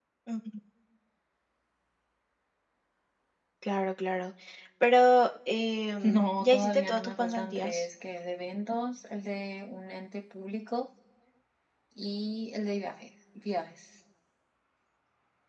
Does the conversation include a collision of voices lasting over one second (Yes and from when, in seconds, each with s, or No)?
Yes, from 6.0 s